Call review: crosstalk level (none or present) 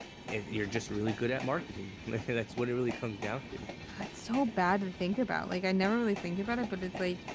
none